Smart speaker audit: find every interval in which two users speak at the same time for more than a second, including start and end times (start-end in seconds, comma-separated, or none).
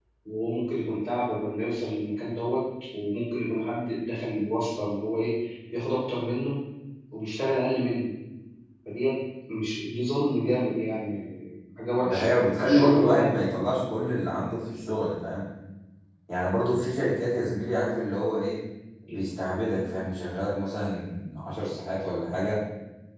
12.0-13.4